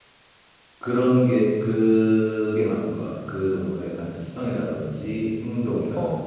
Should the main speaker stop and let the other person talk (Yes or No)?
No